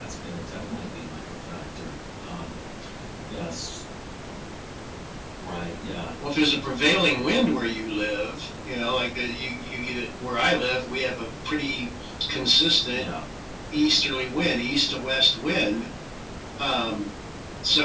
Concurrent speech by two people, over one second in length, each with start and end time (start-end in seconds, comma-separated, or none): none